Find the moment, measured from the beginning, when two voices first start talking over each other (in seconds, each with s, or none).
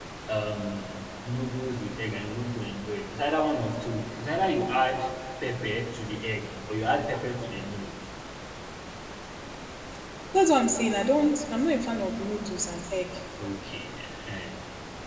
none